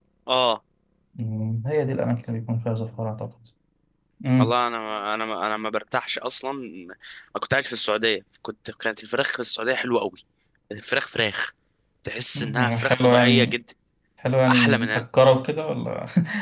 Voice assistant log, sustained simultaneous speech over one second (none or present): present